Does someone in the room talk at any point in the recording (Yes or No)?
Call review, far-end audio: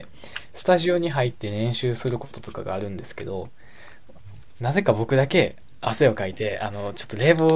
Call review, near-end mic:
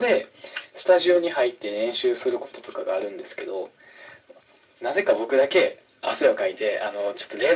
No